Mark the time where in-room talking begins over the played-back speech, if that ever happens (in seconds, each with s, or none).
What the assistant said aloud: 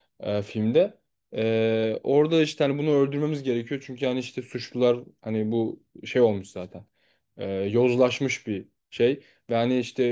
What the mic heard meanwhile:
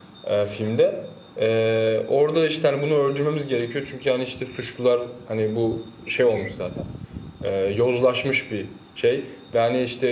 none